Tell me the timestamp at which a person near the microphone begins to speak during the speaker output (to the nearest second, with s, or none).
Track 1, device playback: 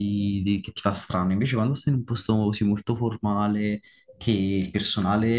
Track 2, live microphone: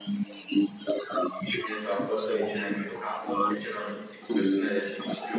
2 s